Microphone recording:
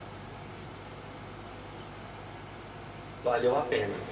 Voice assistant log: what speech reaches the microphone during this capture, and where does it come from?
user only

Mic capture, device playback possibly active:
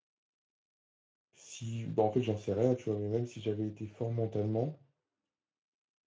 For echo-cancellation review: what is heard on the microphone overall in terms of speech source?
user only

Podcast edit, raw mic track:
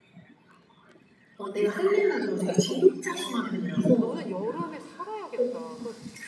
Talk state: both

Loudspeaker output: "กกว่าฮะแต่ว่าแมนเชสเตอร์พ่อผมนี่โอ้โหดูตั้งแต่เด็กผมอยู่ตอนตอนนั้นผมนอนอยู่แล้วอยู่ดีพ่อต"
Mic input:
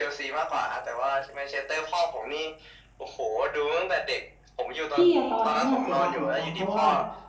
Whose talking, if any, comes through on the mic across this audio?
both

